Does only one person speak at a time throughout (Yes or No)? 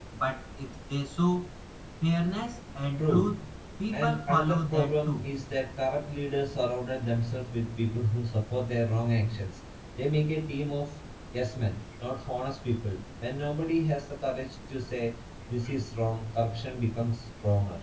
No